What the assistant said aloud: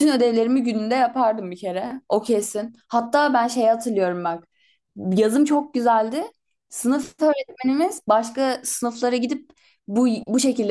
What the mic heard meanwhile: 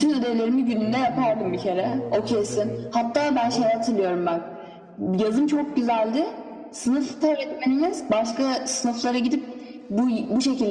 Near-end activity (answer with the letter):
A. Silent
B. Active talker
B